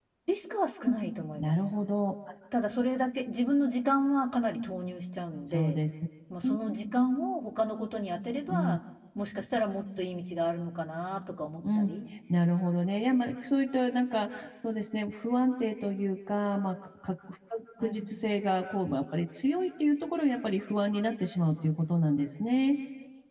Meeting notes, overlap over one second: none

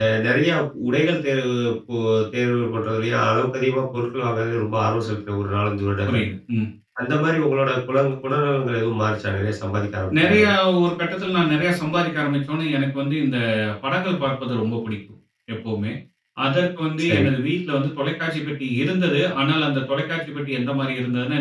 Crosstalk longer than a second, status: none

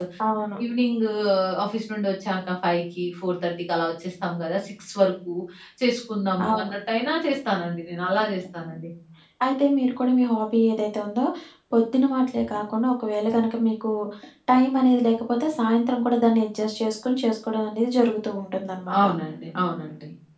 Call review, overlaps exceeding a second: none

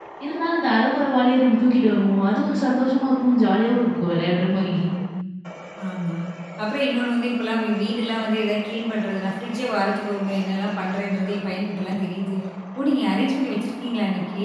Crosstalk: none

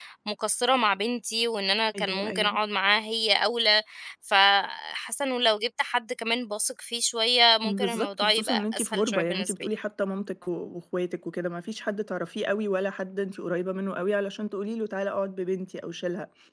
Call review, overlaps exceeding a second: present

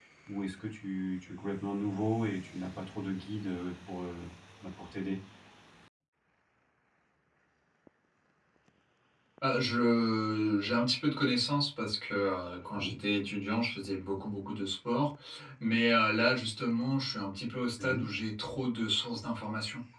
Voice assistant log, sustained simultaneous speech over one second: none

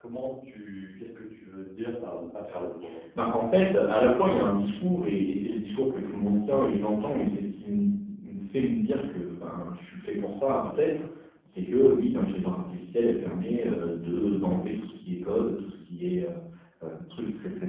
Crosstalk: none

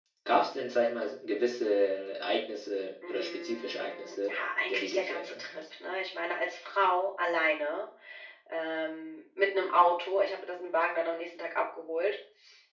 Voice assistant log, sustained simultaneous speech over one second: present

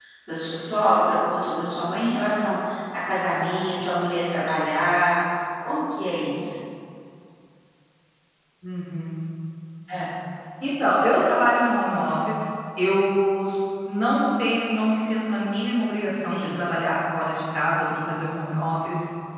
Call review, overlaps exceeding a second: none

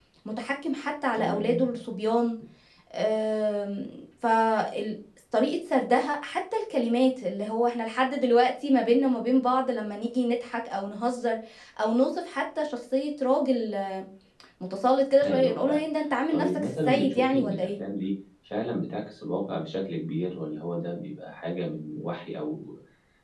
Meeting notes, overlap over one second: present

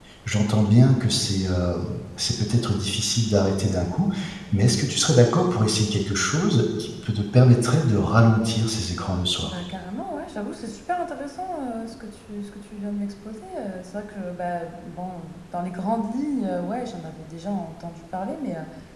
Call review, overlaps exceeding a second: none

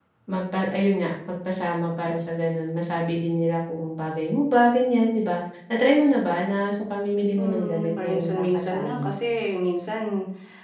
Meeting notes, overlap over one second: present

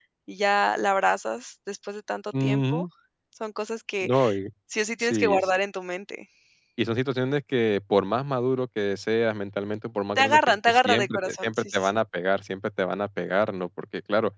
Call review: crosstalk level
present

